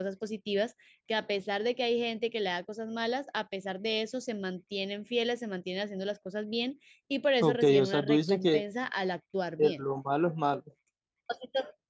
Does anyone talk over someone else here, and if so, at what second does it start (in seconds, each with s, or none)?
7.4 s